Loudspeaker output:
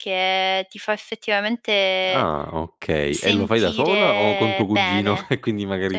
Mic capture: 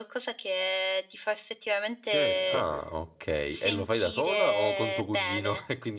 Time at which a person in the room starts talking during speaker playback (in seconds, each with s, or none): 2.0 s